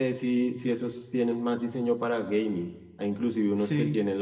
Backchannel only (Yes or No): Yes